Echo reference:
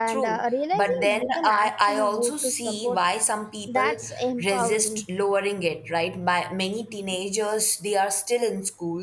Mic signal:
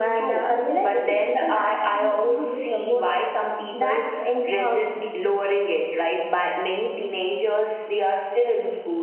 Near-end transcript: none

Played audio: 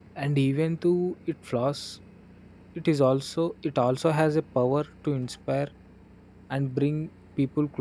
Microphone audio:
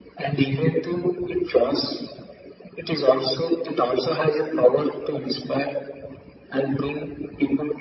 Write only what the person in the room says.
none

